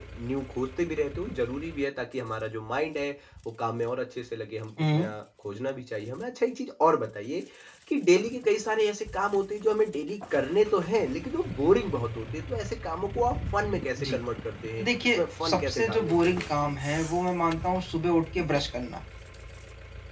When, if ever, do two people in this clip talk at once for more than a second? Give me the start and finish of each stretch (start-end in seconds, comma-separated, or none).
15.5-16.7